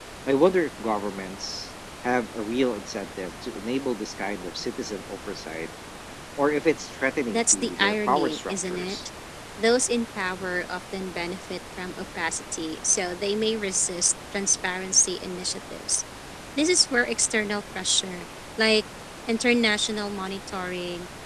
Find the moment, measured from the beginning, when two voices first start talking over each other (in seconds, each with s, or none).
7.3 s